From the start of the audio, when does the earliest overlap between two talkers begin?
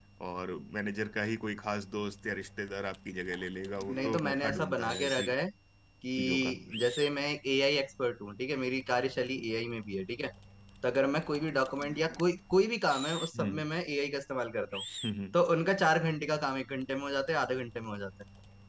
3.9 s

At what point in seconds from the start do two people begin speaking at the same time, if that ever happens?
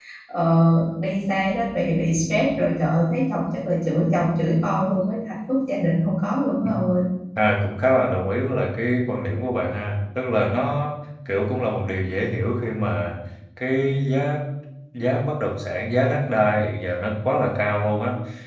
none

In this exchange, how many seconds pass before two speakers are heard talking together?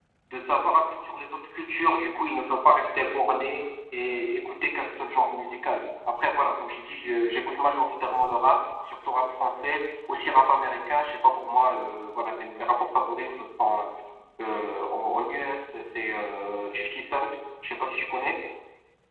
none

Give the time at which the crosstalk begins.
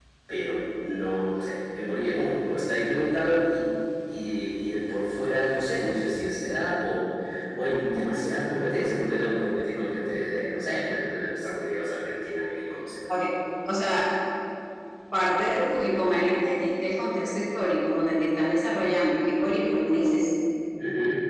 none

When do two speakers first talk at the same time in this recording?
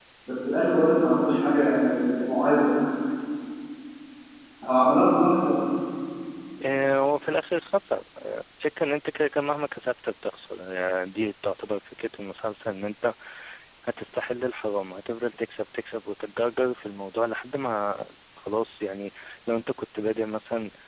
none

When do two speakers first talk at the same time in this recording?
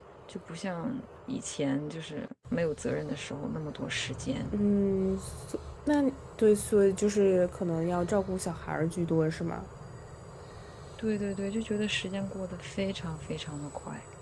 none

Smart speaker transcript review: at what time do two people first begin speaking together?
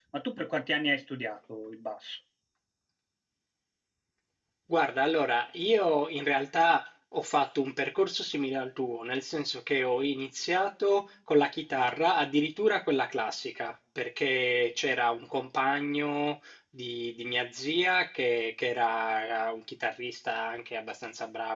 none

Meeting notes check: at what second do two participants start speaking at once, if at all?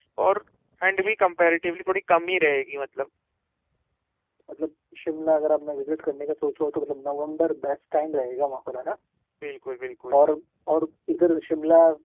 none

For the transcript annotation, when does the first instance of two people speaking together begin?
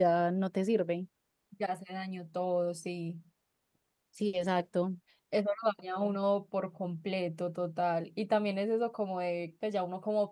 none

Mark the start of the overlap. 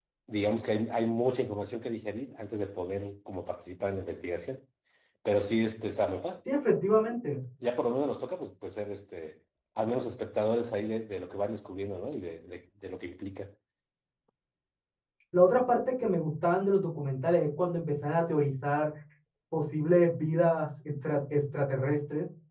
none

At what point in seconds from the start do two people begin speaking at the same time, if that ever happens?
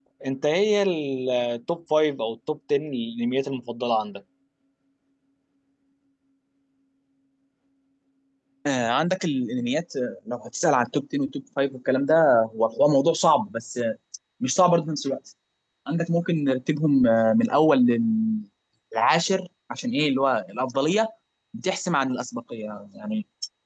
none

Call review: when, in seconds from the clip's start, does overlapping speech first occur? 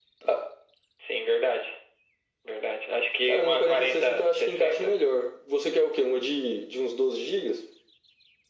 3.3 s

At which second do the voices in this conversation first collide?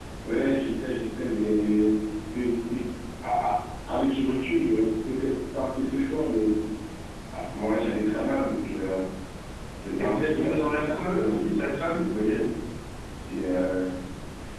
10.0 s

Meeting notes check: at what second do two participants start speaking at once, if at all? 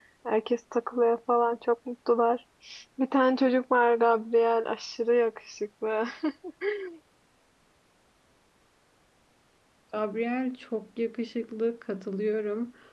none

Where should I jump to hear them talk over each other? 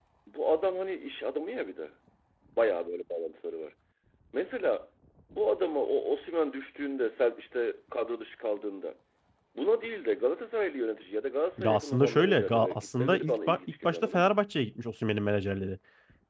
11.6 s

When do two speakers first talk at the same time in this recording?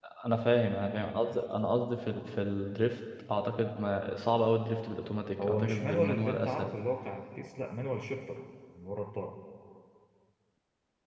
5.4 s

